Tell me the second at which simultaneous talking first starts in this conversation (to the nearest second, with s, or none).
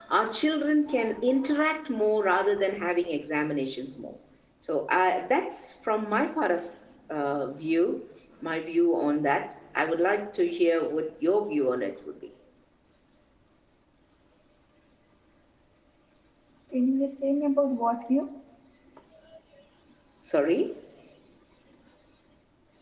none